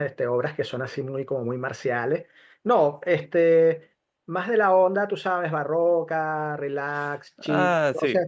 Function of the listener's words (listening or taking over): listening